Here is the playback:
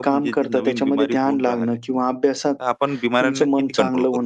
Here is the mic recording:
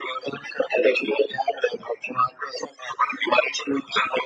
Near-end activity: none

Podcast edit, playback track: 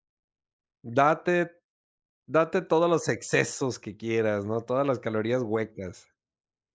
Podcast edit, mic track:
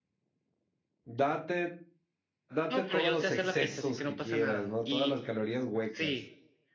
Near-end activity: present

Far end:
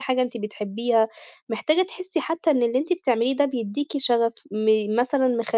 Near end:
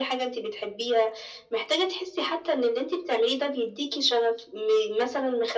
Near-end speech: none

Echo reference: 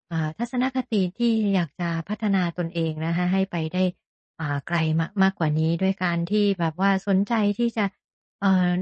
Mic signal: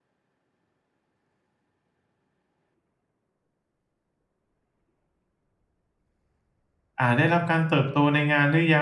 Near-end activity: present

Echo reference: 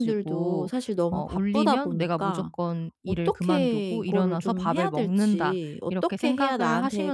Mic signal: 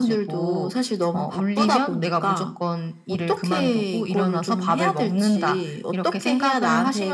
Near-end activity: none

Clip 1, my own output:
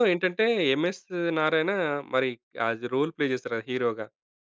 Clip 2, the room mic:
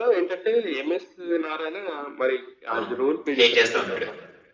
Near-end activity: present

